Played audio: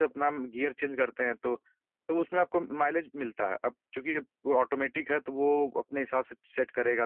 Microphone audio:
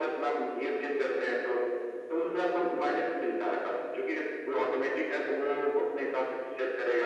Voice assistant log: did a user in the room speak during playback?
No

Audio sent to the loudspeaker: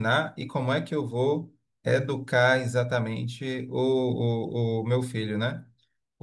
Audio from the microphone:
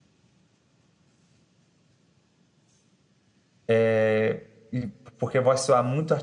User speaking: Yes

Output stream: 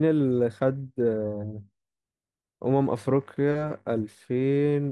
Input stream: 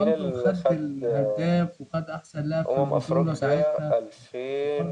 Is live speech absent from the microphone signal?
No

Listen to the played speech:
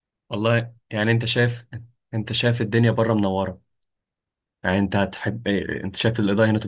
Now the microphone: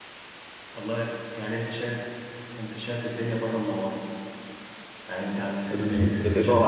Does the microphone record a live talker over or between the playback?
Yes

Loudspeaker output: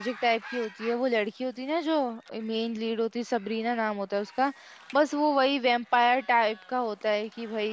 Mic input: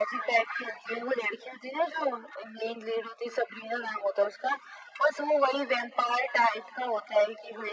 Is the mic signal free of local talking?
Yes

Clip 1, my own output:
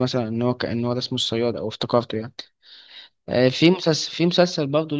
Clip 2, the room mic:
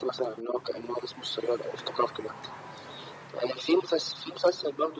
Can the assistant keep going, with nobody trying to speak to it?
Yes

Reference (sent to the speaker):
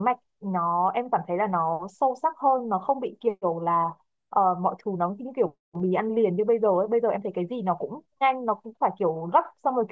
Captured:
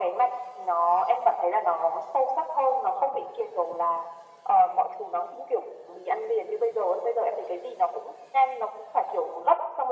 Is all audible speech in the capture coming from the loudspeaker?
Yes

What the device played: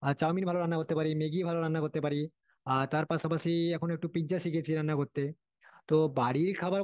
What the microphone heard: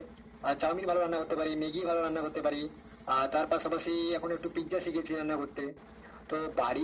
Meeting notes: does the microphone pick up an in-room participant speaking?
No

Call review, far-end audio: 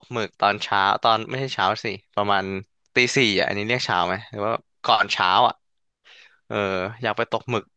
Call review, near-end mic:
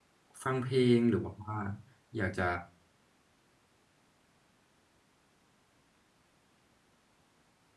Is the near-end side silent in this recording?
No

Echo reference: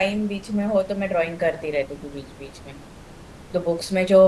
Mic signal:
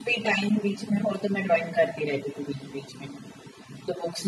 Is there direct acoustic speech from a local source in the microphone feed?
No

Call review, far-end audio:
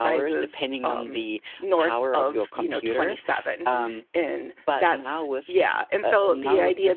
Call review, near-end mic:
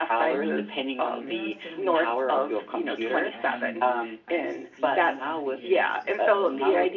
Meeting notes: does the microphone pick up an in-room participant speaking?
Yes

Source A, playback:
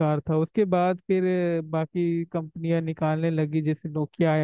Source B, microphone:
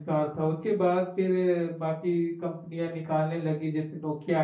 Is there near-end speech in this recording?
No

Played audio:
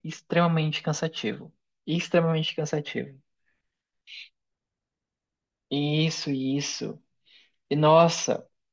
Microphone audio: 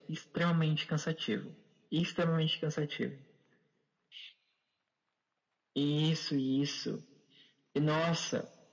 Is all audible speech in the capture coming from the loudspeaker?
Yes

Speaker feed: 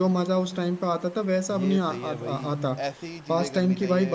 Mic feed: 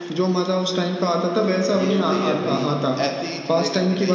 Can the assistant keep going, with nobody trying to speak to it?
Yes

